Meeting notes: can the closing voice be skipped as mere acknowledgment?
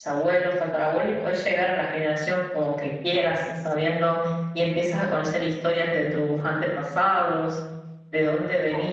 Yes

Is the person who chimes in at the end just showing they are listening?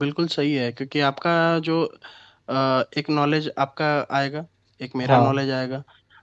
Yes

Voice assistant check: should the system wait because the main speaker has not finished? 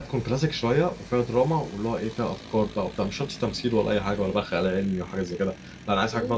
Yes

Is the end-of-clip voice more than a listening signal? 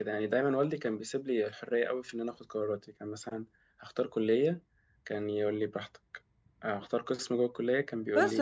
Yes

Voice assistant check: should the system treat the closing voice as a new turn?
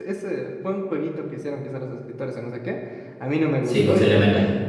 No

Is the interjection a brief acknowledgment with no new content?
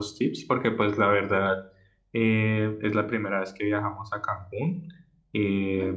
Yes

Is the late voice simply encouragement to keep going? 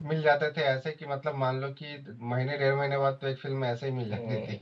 No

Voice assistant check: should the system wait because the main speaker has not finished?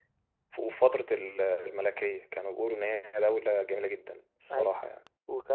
No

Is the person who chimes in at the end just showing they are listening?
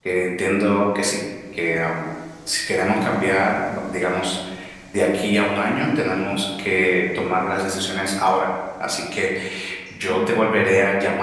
Yes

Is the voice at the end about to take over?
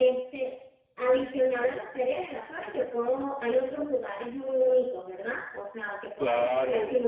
Yes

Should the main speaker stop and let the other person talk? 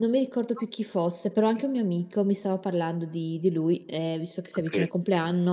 No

